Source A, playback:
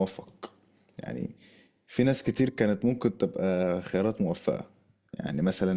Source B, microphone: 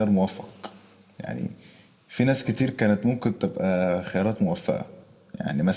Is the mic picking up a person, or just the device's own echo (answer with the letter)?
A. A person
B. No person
B